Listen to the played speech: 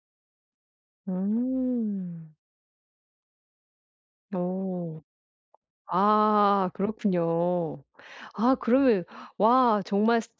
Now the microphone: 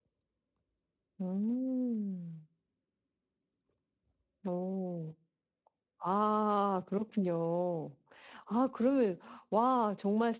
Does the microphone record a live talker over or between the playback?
No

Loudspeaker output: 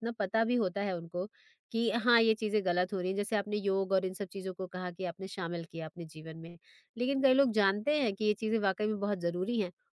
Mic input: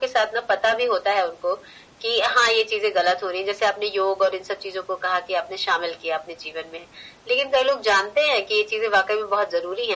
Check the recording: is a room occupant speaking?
No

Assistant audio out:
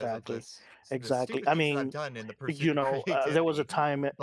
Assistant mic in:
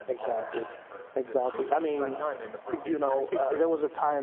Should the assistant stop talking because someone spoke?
Yes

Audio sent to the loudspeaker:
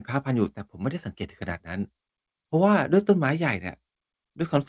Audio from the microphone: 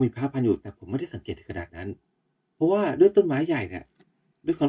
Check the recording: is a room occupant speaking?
No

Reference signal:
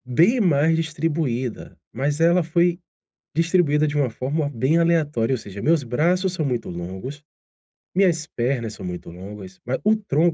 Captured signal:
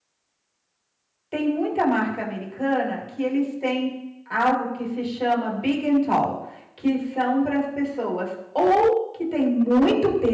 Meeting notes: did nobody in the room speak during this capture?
No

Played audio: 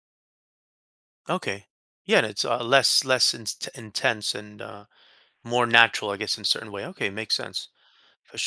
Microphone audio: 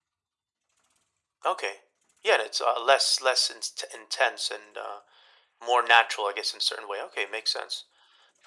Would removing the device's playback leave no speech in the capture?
Yes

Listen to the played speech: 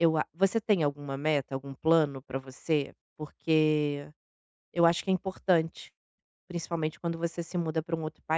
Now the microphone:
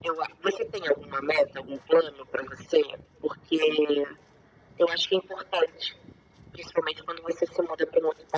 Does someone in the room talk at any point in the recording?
No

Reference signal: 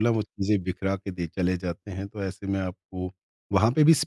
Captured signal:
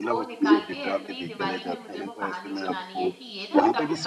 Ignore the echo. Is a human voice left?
Yes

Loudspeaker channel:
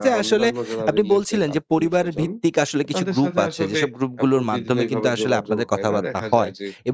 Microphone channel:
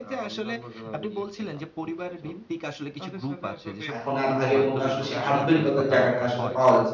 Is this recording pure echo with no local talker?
No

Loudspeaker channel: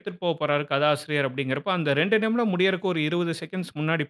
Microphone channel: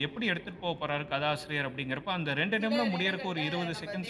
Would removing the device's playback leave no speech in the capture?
No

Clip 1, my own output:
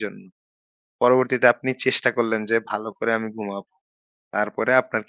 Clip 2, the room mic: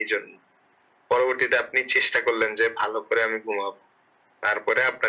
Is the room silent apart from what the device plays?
Yes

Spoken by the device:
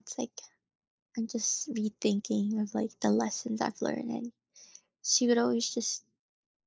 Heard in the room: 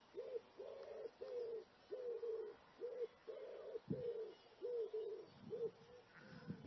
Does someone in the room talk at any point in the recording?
No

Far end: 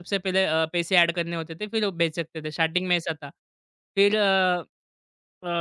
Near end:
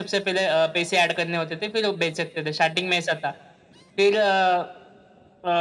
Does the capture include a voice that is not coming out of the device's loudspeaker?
No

